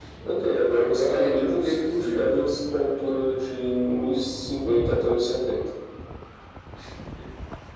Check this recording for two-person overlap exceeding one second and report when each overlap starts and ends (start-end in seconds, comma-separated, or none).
0.7-2.4